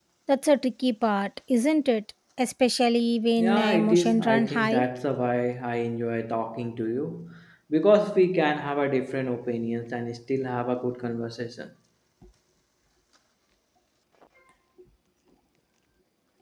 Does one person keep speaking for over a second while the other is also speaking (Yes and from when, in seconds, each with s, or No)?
Yes, from 3.4 s